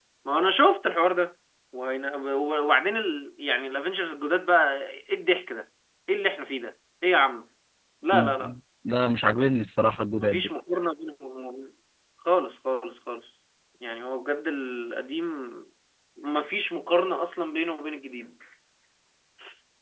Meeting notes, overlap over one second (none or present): none